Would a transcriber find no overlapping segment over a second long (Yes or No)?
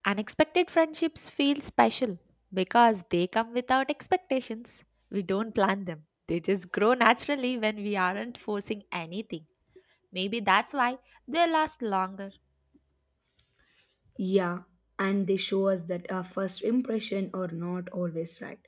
Yes